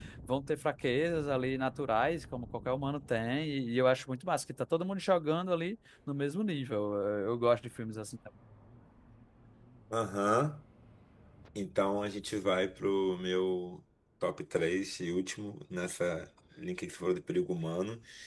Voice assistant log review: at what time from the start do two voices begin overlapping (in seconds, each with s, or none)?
none